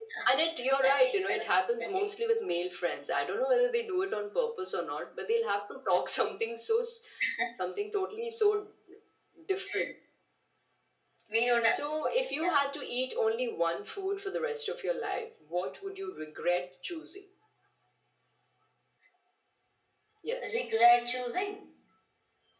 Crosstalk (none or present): present